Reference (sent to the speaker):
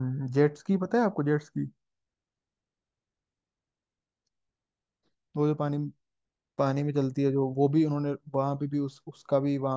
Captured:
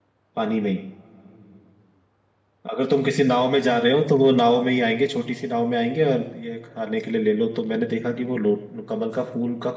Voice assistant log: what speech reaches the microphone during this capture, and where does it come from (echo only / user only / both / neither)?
user only